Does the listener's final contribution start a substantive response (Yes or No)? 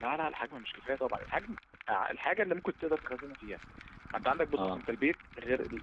No